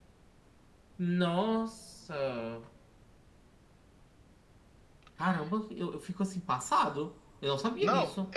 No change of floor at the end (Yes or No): No